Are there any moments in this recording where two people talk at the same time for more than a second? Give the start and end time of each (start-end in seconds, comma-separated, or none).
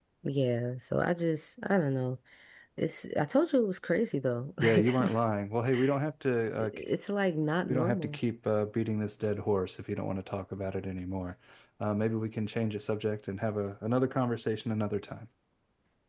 none